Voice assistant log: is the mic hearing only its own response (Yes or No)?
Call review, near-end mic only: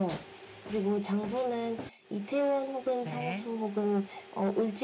No